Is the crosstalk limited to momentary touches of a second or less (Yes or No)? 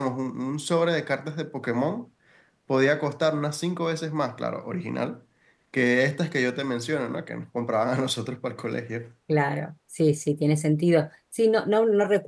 Yes